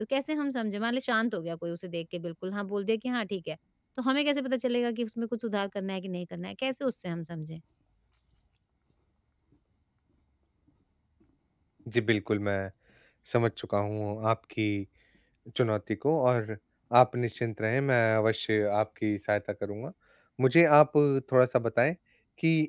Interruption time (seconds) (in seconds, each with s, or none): none